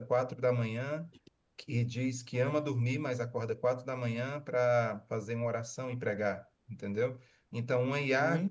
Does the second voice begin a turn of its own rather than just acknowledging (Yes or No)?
No